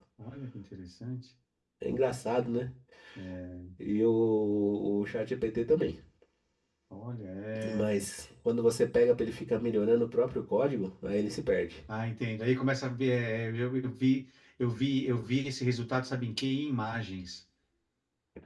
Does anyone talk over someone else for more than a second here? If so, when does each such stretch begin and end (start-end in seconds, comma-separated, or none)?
none